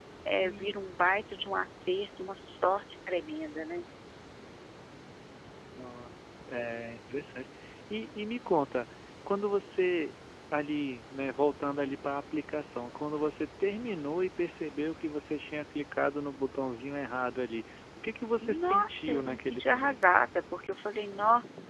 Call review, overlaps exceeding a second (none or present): present